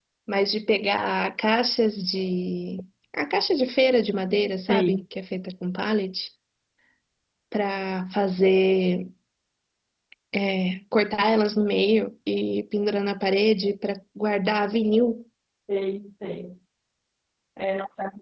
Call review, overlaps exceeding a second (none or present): none